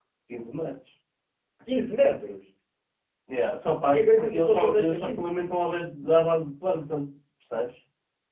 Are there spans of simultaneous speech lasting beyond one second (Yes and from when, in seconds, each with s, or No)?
Yes, from 3.9 s